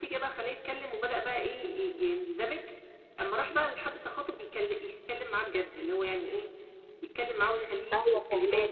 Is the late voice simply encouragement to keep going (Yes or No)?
No